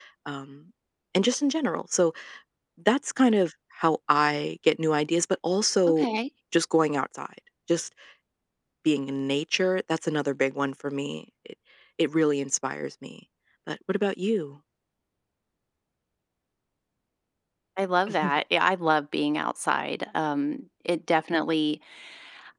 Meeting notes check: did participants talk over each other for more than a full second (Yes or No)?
No